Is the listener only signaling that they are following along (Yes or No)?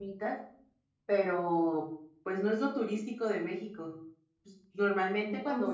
Yes